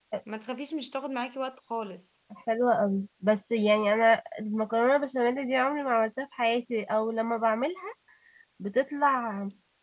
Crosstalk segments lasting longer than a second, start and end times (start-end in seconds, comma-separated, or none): none